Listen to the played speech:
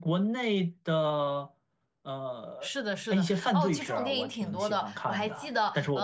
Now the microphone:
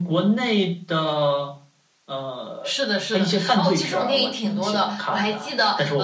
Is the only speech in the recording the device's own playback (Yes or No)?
Yes